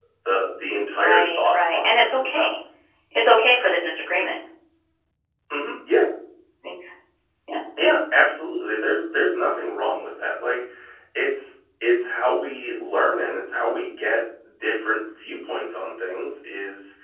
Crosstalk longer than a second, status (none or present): present